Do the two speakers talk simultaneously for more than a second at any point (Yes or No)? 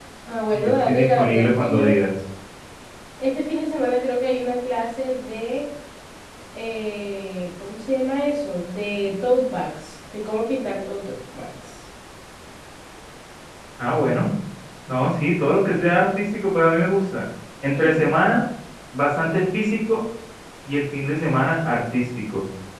Yes